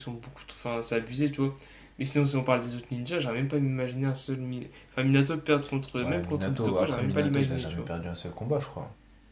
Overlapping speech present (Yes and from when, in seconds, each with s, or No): Yes, from 6.0 s